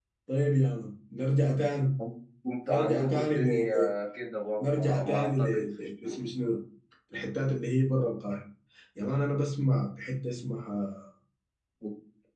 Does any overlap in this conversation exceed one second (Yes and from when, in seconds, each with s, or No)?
Yes, from 2.7 s